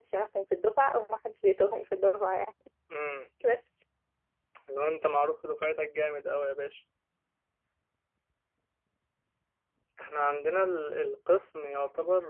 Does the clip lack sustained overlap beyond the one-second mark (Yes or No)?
Yes